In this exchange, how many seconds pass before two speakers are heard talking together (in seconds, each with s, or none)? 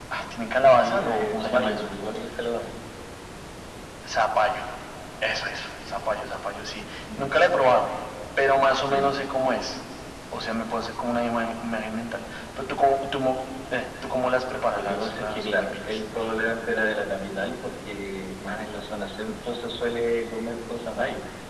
0.7 s